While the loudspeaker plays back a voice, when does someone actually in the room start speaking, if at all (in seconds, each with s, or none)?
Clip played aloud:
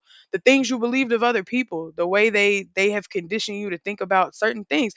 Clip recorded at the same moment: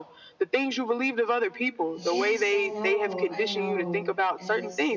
1.9 s